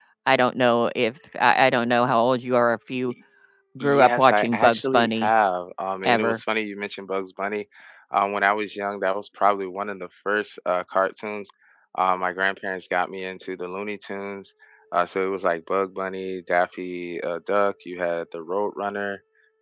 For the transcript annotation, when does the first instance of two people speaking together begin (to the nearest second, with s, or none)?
4 s